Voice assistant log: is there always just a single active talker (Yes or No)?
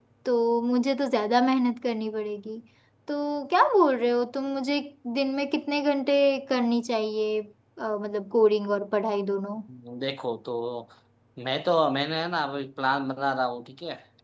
Yes